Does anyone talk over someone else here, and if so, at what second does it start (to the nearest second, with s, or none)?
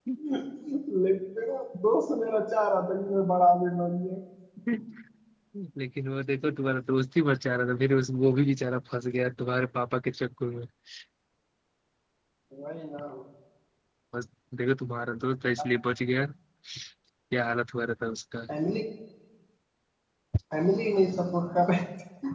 none